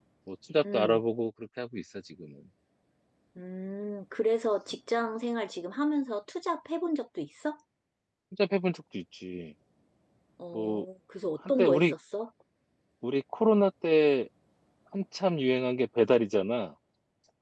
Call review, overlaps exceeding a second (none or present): none